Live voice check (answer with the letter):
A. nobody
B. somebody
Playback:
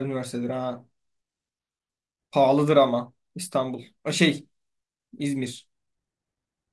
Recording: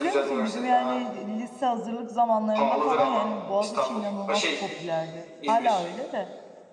B